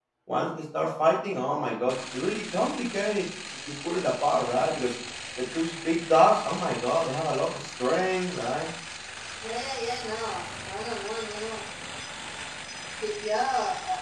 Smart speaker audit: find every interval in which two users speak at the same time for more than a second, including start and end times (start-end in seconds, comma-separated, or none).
none